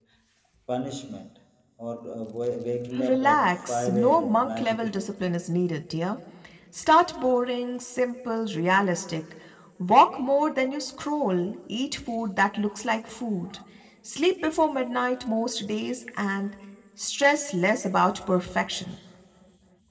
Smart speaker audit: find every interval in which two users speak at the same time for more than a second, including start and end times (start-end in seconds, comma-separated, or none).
3.0-5.1